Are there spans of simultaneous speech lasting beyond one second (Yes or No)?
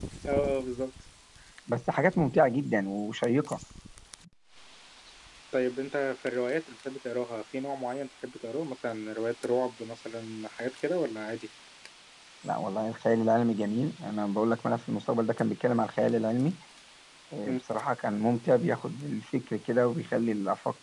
No